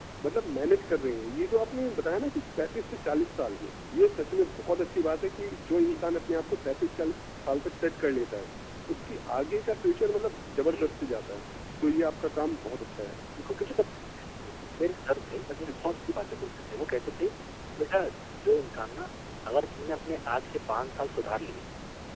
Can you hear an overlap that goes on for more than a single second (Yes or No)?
No